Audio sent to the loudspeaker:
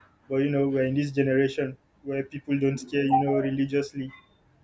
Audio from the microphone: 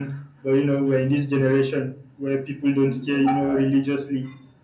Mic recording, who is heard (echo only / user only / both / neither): echo only